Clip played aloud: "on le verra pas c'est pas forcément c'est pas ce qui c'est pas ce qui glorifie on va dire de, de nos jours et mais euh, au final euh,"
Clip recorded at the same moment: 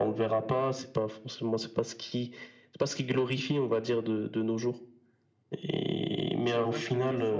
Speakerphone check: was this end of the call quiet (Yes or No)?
No